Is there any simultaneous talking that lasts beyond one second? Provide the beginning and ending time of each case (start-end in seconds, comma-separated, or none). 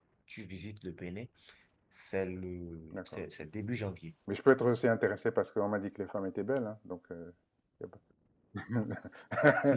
none